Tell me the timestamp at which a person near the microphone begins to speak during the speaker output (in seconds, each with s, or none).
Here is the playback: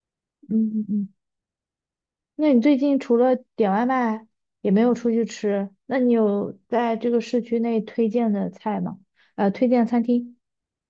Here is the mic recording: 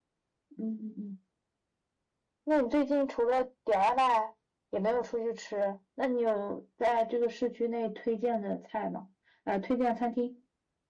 none